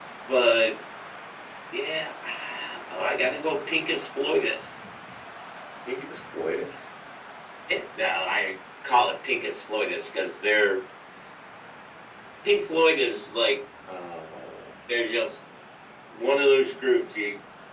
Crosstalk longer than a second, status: none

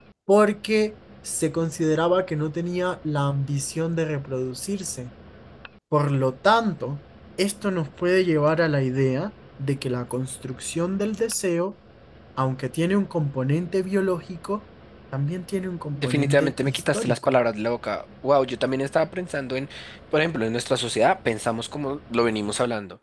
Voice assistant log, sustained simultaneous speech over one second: present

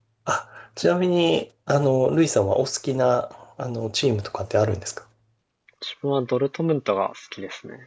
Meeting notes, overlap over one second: none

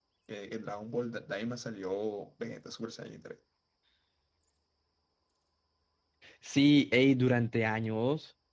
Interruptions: none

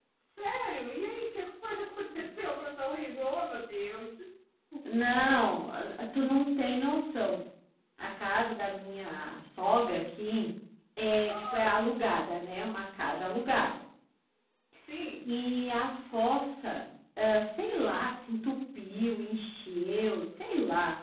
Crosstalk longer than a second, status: none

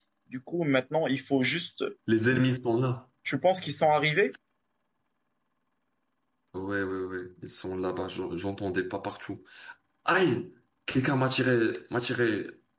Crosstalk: none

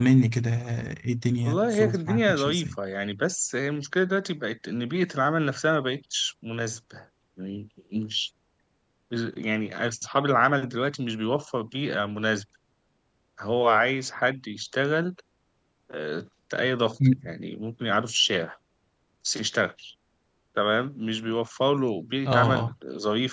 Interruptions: present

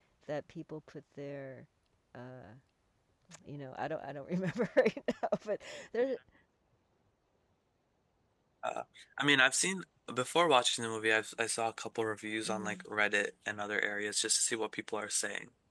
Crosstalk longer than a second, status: none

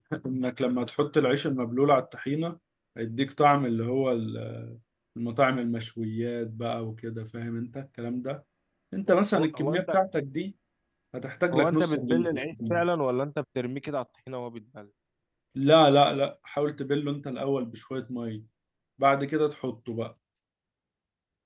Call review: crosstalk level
present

